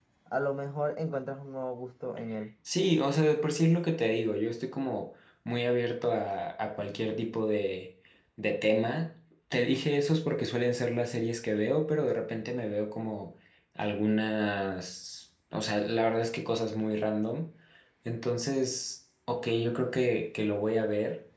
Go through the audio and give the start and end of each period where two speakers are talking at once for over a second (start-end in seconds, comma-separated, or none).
none